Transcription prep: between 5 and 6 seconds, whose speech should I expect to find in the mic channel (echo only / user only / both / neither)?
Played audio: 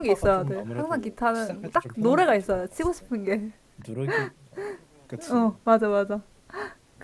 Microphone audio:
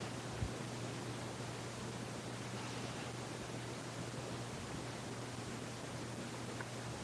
neither